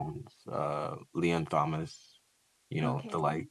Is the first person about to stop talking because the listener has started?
No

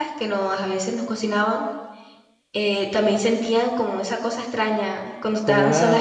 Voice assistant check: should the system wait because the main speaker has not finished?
No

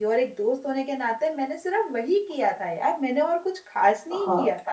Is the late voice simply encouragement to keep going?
No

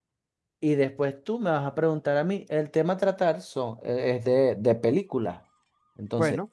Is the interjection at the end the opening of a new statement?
No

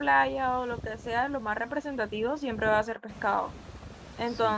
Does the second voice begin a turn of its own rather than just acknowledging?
No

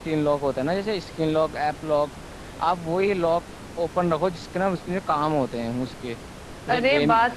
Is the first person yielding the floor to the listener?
Yes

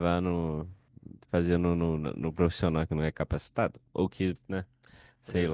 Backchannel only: No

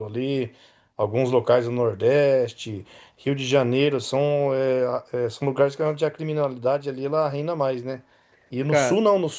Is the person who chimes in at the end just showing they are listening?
Yes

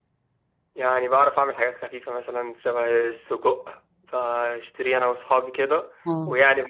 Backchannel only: Yes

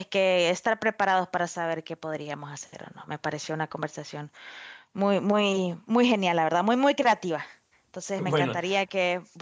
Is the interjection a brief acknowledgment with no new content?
Yes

